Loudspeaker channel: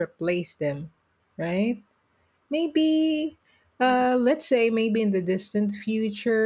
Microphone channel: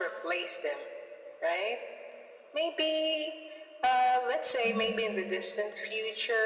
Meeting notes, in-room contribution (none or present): present